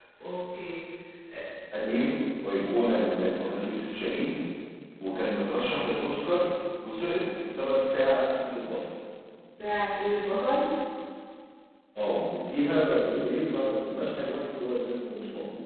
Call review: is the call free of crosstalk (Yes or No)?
Yes